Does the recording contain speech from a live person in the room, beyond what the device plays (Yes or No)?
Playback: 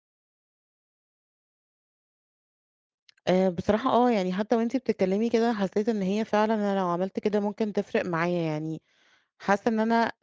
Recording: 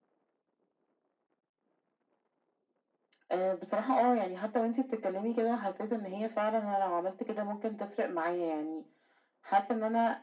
No